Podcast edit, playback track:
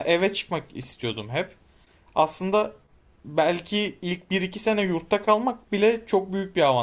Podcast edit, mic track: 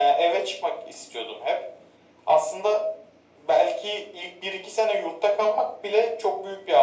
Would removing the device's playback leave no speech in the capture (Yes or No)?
Yes